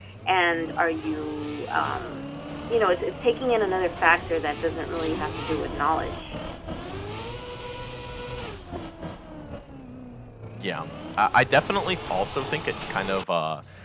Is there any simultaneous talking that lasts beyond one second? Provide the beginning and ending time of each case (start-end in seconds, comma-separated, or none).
none